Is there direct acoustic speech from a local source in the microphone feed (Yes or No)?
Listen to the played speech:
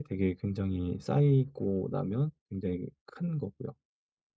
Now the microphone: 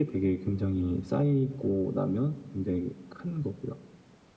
No